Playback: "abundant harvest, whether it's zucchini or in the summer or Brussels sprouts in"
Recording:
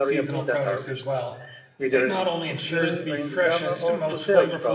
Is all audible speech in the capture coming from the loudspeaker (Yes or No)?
No